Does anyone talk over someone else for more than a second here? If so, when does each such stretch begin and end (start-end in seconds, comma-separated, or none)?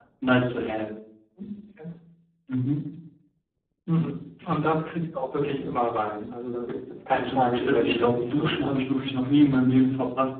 7.1-8.7